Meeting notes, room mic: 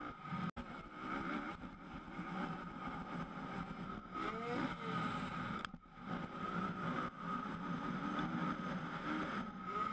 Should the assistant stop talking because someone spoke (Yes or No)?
No